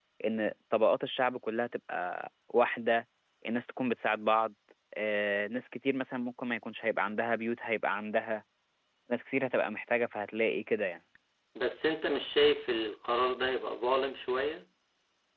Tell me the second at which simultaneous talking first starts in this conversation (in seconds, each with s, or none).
none